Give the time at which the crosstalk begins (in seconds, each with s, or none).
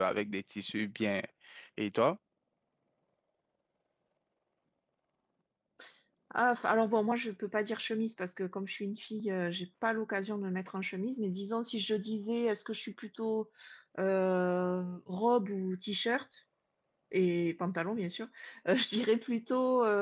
none